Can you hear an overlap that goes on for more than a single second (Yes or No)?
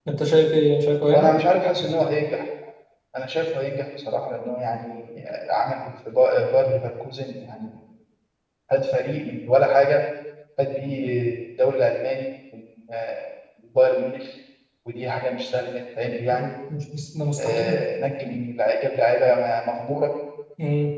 No